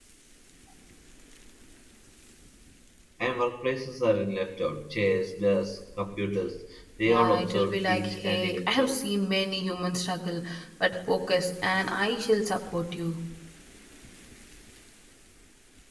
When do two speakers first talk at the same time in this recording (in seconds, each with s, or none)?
7.0 s